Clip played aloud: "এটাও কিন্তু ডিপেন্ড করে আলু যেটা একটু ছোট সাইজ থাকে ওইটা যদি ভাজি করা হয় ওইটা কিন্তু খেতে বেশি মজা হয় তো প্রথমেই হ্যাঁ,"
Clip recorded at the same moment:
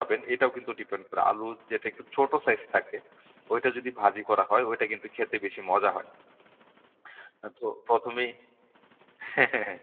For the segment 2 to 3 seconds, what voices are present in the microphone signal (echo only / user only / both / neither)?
echo only